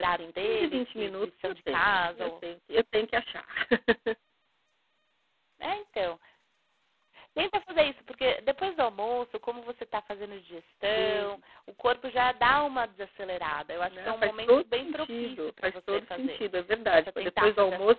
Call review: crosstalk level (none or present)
present